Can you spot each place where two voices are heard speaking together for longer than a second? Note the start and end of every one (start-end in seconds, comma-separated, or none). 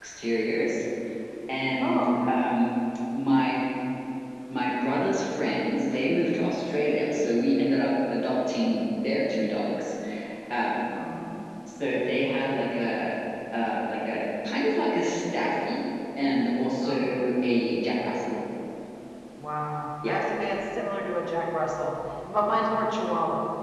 none